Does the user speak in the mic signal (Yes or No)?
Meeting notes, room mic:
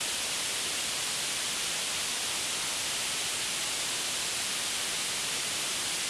No